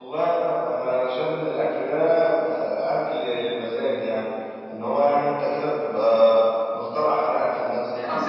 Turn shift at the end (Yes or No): Yes